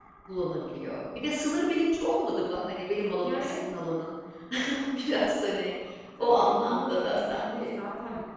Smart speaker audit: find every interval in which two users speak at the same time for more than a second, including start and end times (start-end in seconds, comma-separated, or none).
6.2-7.7